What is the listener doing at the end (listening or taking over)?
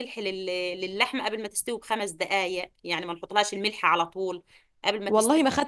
taking over